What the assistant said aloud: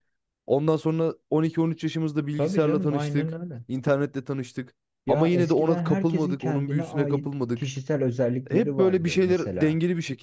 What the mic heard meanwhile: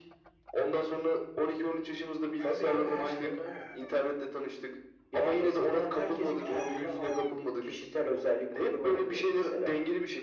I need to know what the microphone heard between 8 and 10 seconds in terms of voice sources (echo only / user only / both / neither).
echo only